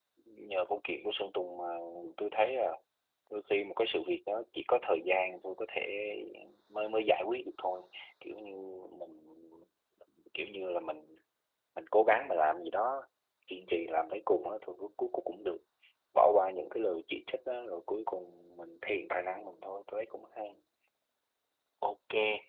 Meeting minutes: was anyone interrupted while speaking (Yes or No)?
No